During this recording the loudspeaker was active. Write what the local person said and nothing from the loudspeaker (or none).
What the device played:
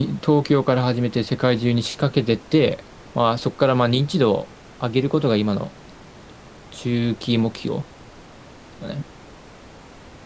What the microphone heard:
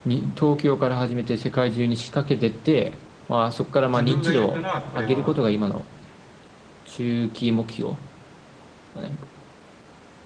自分がいるから、これは、